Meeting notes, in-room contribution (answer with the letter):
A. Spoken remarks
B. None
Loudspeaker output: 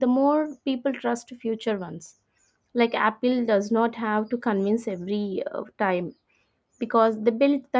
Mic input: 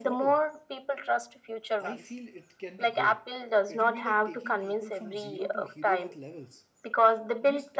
A